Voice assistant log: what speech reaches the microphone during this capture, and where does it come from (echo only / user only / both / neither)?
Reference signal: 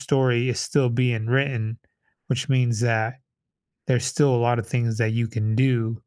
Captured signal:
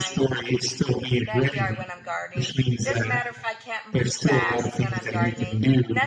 both